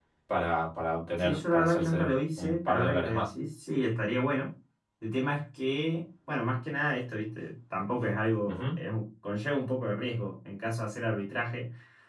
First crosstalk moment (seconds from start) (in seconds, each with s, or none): 1.2 s